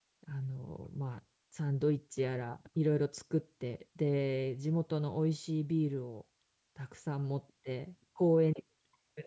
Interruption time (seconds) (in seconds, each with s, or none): none